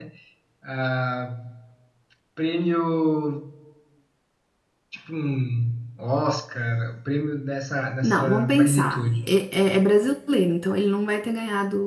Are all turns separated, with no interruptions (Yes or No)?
No